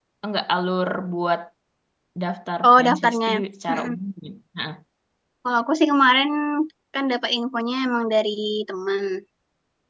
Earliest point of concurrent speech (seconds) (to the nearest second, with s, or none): 3 s